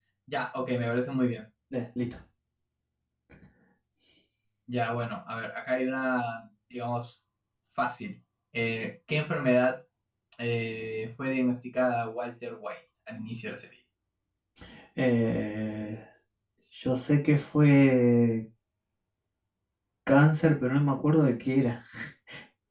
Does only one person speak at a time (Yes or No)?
Yes